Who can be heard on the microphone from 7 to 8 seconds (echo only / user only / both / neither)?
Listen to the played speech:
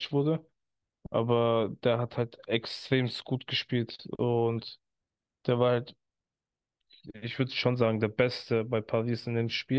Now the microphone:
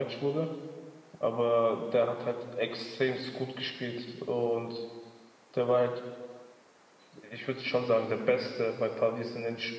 echo only